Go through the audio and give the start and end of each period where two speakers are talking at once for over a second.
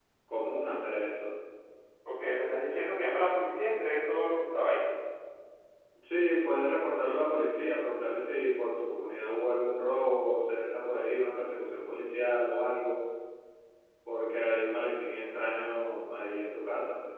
none

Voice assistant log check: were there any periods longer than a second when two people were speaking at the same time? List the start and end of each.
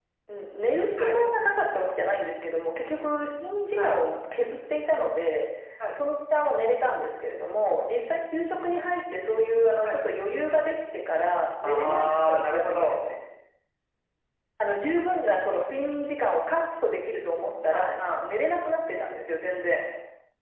11.6-13.0

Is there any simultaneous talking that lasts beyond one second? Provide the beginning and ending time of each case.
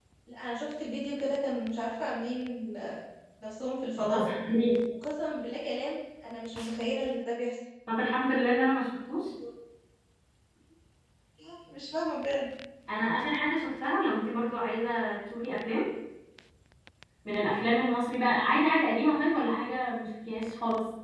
none

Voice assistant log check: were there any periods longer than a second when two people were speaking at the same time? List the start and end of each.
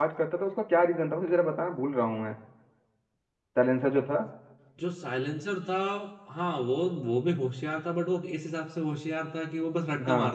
none

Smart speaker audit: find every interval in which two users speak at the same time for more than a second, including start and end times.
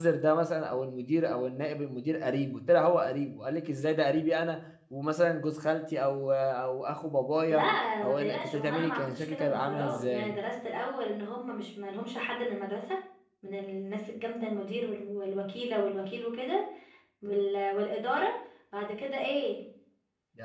8.0-10.3

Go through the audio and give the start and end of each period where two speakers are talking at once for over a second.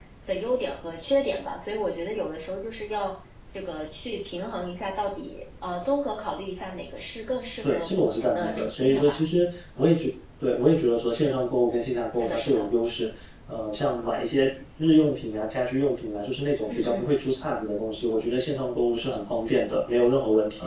7.6-9.2

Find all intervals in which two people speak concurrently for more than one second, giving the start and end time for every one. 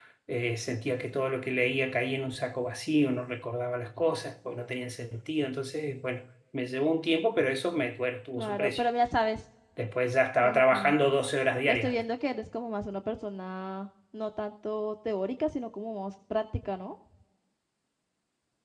none

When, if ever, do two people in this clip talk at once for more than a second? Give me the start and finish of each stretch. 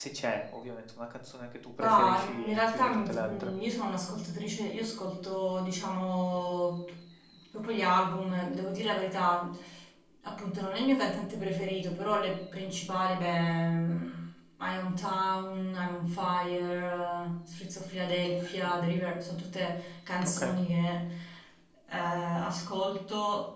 1.8-3.5

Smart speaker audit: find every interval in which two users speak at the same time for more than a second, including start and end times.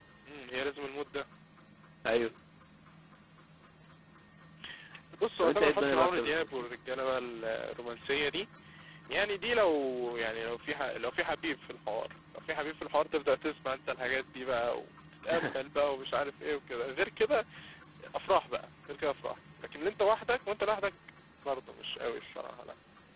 5.4-6.7

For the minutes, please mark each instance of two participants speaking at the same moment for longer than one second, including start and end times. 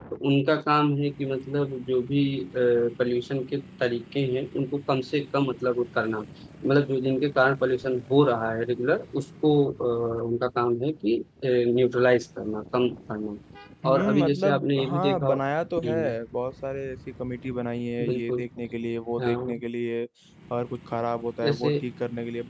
13.9-15.4

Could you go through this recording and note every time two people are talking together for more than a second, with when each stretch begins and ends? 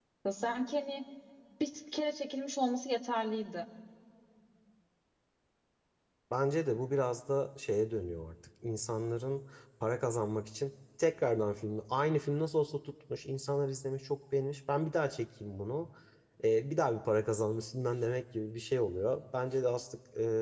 none

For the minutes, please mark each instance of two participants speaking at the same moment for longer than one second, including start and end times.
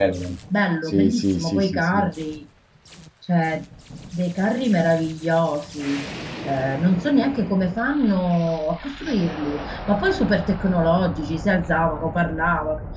0.9-2.1

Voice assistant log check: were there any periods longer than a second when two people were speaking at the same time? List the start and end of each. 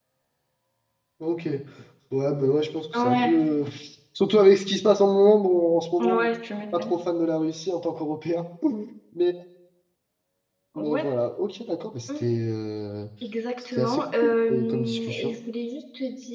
13.8-15.3

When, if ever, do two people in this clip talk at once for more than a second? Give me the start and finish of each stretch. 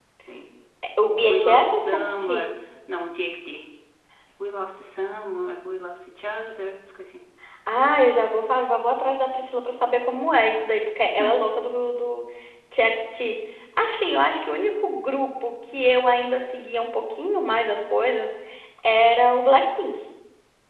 1.3-2.5

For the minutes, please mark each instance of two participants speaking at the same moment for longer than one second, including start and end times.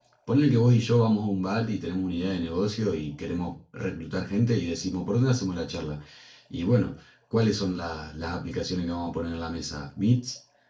none

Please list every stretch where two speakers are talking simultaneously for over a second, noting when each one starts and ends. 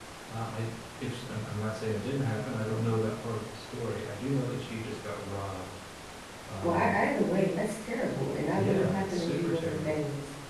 8.5-9.9

